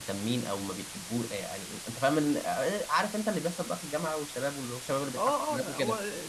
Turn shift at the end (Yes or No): Yes